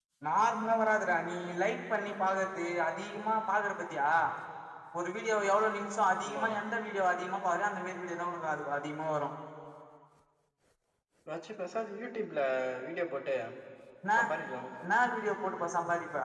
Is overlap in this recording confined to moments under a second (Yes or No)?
Yes